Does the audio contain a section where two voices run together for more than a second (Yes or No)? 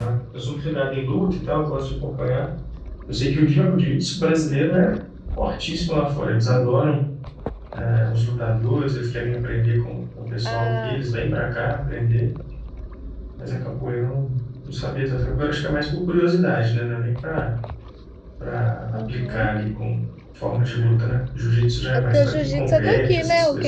Yes